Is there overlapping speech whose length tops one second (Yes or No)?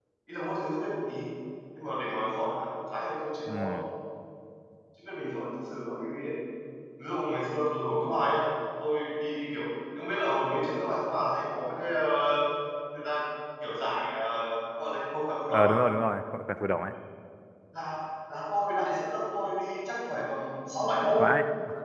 No